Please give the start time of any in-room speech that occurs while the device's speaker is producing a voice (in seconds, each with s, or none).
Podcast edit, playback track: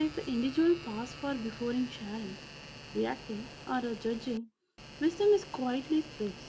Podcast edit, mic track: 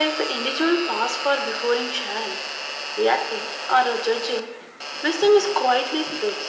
none